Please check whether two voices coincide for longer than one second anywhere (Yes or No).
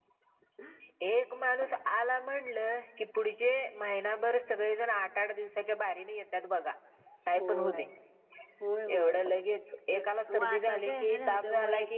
Yes